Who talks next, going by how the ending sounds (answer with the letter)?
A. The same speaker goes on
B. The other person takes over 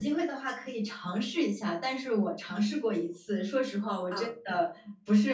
A